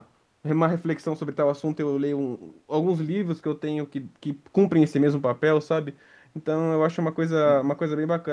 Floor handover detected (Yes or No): No